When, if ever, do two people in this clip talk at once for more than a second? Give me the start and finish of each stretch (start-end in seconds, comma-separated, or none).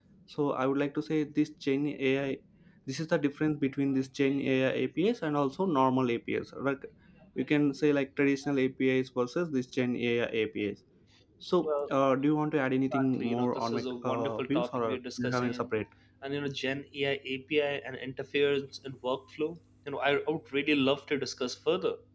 12.9-14.8